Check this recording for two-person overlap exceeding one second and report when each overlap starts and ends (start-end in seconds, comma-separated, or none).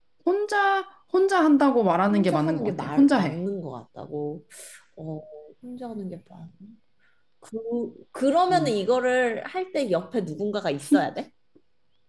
2.1-3.4